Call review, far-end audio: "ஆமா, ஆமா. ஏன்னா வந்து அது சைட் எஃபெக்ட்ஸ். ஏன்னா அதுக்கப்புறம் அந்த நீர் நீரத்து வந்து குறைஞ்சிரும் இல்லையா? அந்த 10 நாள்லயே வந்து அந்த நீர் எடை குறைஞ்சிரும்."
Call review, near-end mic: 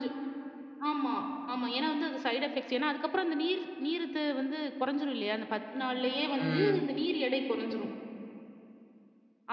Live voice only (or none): ம்.